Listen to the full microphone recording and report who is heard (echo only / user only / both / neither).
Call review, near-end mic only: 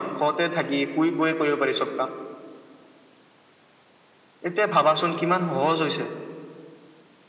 echo only